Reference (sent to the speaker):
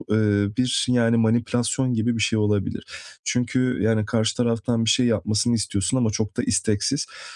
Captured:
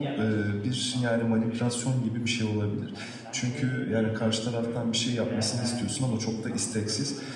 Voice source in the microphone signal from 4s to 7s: both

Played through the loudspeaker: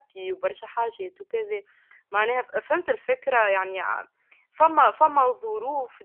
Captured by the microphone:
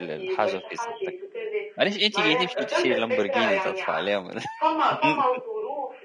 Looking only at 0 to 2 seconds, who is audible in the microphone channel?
both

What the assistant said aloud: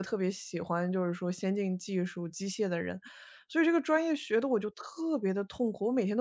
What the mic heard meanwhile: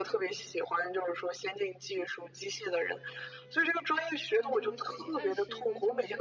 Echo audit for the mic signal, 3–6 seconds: both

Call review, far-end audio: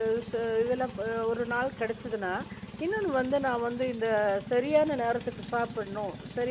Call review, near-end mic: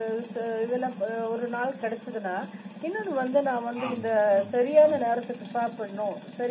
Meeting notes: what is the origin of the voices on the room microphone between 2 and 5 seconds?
both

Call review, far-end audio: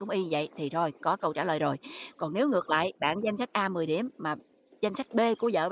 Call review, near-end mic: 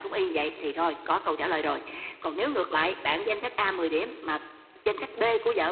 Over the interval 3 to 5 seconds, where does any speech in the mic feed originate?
echo only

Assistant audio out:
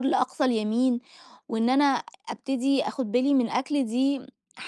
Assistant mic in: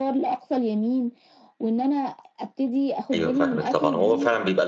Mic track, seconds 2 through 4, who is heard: both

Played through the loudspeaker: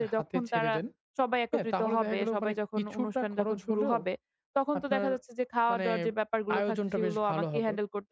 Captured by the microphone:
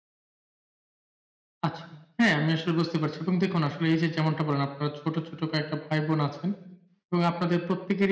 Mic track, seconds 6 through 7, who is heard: user only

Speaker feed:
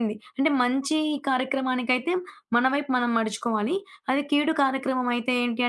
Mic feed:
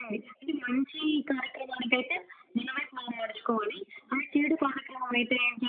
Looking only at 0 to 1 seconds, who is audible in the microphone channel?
echo only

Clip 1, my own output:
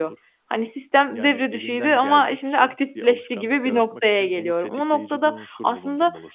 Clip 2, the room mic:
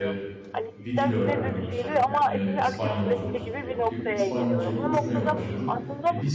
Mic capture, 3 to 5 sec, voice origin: both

